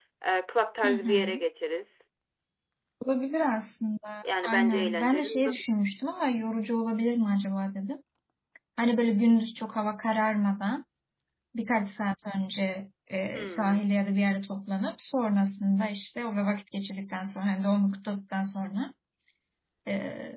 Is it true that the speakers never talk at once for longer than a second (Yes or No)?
No